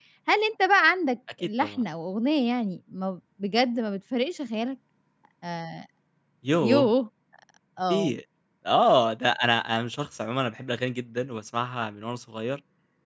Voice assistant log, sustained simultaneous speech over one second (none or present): none